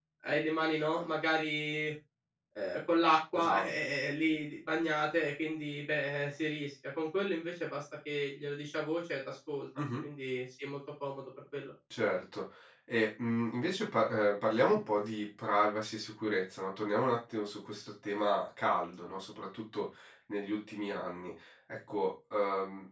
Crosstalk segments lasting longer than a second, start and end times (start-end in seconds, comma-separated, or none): none